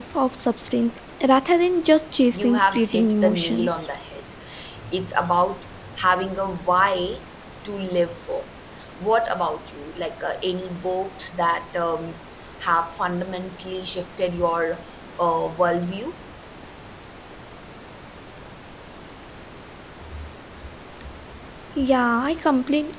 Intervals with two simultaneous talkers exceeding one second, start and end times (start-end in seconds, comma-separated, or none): 2.3-3.9